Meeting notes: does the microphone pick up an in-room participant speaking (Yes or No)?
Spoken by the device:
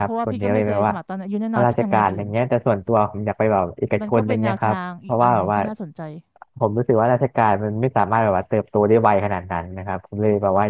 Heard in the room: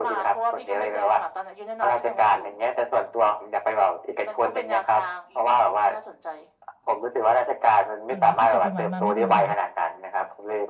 Yes